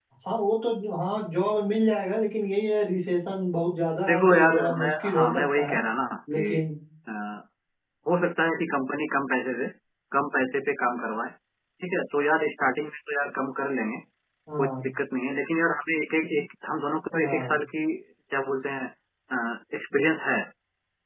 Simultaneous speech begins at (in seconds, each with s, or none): 4.1 s